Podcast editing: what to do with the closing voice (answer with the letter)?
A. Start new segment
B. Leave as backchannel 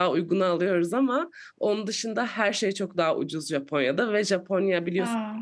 B